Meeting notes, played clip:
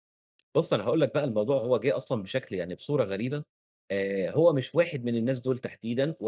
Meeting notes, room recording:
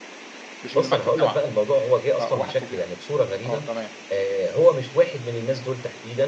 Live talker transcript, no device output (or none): مش اللي معاك في الجامعة، آه واحد صدي آه، تمام.